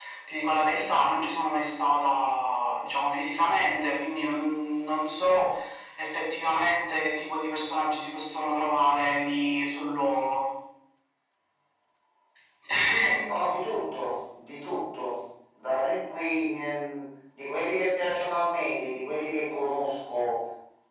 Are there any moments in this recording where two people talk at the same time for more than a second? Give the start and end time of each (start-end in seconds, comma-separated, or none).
none